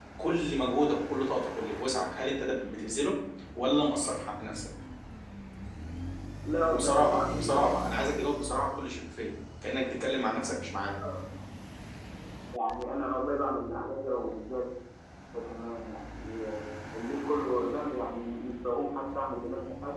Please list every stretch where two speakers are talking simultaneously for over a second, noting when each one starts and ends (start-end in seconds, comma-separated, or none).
6.7-8.1